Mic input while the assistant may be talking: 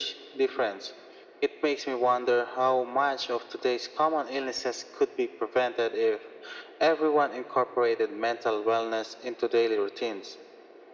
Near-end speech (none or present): none